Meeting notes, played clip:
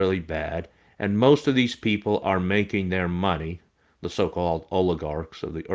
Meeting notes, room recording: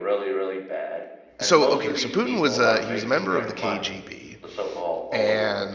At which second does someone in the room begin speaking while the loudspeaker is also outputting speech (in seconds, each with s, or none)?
1.4 s